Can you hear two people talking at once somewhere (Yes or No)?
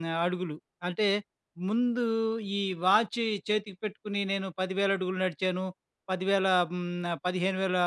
No